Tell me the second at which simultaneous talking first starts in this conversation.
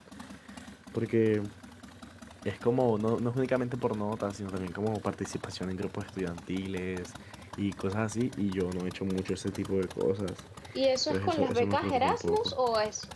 11.1 s

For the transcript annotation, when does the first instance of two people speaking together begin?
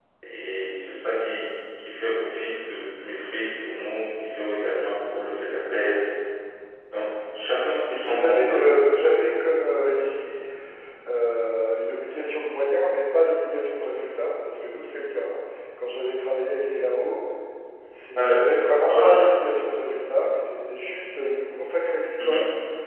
7.9 s

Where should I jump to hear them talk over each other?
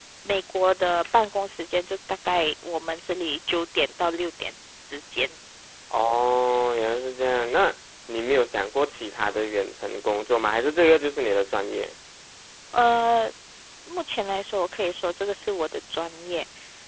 none

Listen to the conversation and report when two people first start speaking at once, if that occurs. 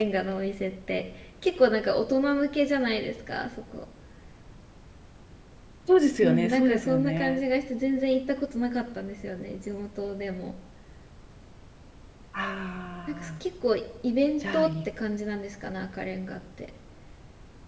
6.2 s

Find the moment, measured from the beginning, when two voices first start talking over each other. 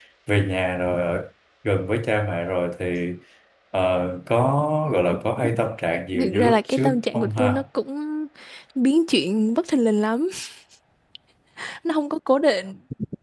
6.2 s

